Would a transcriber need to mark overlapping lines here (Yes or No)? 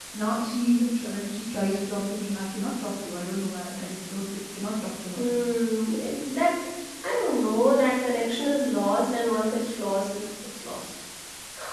No